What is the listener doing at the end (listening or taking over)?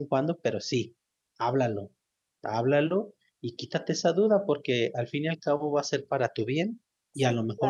listening